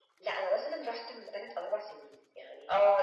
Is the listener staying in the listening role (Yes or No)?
No